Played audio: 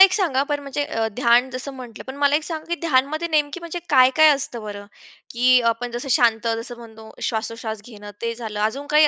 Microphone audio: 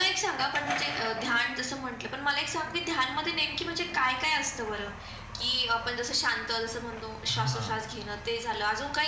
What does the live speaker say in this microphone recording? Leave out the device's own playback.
हां.

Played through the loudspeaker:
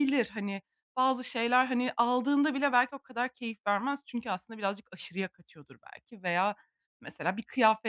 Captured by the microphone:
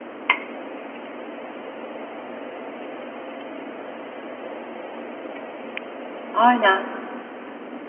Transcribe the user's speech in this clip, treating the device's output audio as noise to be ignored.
Aynen.

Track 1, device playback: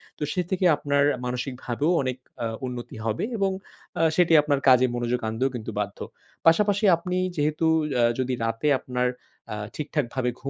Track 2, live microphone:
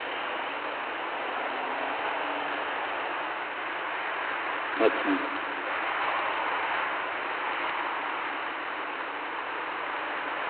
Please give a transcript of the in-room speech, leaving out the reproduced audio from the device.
আচ্ছা।

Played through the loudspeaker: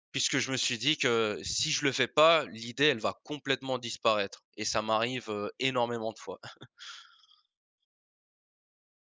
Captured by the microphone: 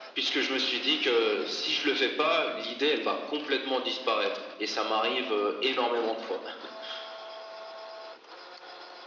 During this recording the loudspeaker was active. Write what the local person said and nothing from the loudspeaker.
none

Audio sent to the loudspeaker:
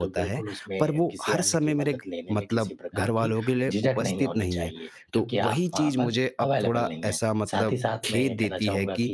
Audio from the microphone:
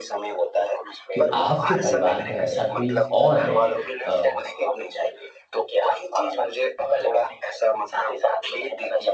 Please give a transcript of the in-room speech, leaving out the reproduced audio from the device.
कि आपके परिवार में ऐसा कोई और है अ,

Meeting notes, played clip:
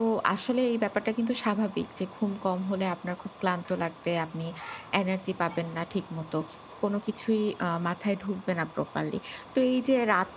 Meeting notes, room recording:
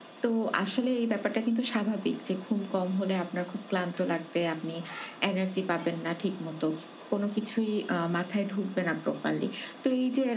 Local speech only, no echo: none

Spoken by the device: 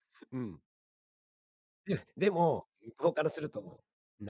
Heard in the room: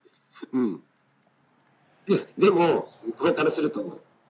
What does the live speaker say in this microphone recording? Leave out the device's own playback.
none

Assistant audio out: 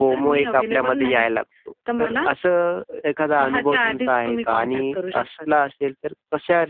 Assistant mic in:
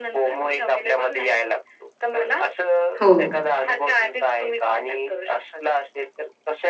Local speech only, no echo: हो.

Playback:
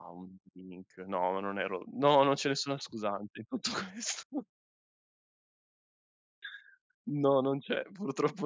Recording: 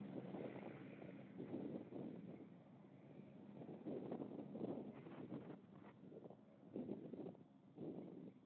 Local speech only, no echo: none

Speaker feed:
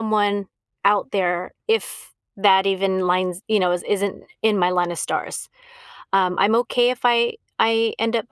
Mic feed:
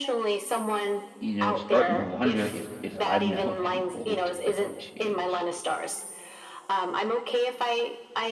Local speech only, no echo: you know, starting to wonder if if I'm now too old to ever change.

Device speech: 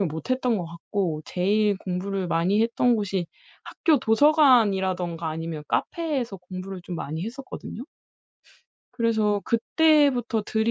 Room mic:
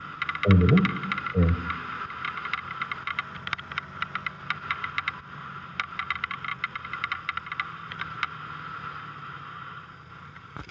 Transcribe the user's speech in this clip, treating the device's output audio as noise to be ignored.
공부를? 예.

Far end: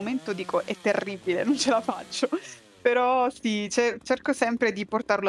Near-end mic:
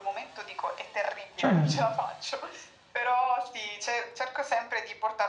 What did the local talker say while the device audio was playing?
Certo.

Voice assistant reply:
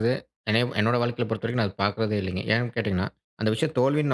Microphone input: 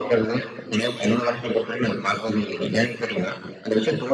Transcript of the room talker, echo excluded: none

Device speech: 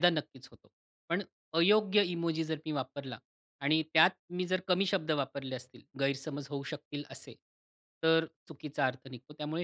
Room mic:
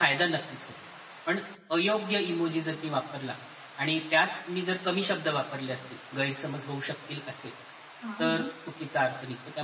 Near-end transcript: हां, मग?

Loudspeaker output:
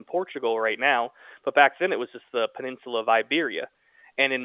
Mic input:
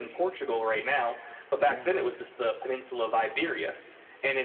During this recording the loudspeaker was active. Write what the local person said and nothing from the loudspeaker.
Yeah.

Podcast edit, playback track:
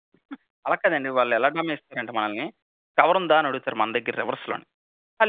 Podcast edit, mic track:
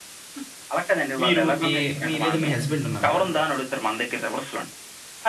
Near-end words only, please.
మీరు ఏ మీ లేదా మీ హస్బండ్ ఉన్నారు కదా!

